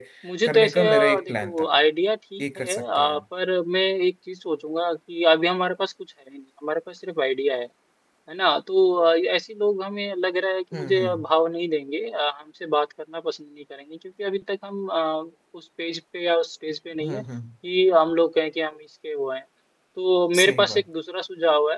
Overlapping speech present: Yes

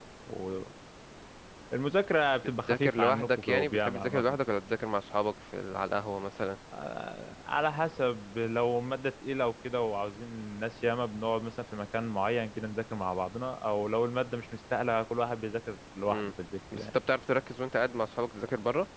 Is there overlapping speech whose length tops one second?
Yes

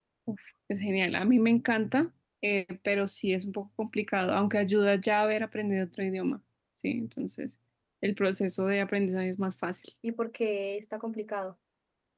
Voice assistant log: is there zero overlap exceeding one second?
Yes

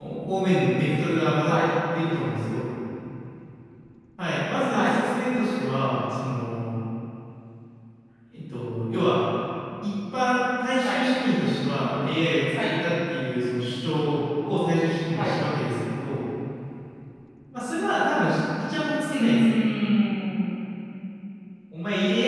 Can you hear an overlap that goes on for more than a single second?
No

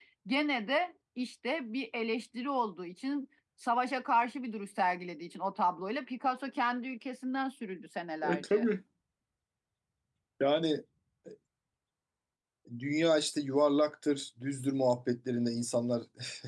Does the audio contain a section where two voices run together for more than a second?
No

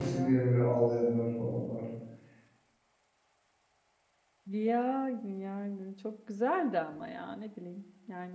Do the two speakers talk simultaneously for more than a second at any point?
No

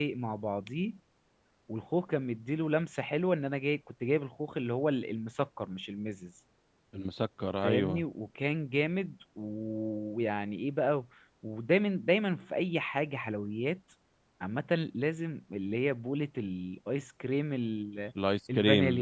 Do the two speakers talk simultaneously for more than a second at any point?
No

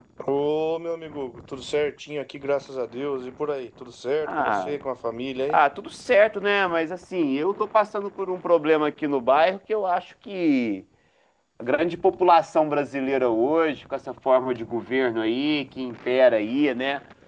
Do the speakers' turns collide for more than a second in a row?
No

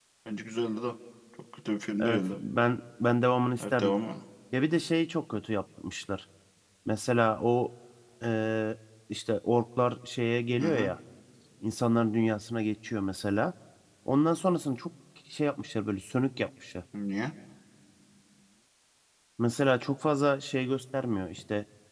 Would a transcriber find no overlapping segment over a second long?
Yes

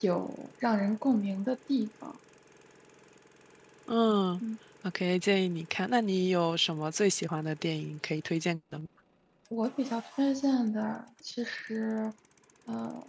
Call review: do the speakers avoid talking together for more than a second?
Yes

